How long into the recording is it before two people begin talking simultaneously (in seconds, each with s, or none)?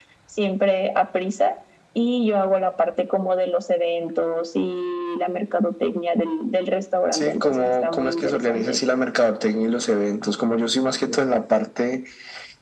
7.1 s